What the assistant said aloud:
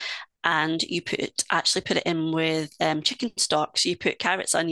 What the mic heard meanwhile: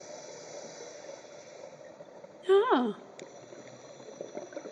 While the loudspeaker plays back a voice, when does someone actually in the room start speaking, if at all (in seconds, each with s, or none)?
2.5 s